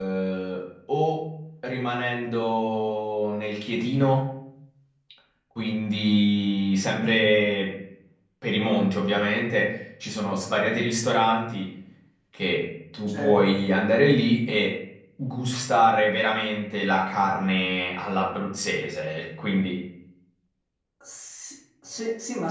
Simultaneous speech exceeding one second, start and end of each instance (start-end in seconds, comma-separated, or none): none